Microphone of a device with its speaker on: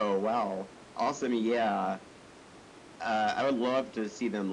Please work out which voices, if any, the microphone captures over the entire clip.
echo only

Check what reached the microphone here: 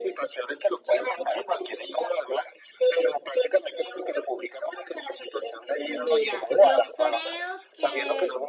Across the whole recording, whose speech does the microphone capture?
both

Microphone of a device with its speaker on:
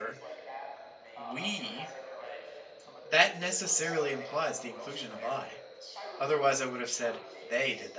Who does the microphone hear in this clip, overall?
both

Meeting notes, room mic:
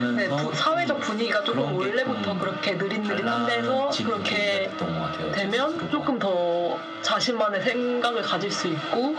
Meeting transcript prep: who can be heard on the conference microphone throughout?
echo only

